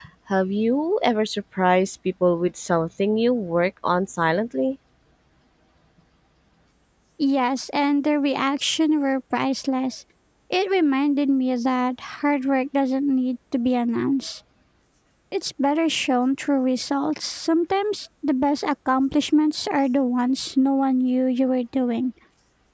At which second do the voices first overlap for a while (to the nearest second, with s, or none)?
none